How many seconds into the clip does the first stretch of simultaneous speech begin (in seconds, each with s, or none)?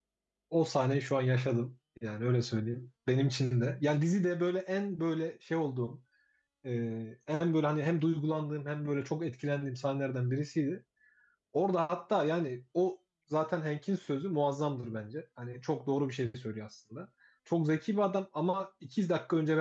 none